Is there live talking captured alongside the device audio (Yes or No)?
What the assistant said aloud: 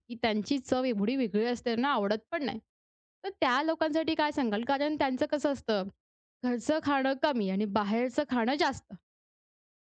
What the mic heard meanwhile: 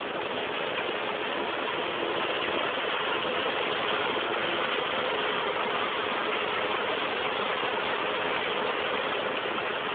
No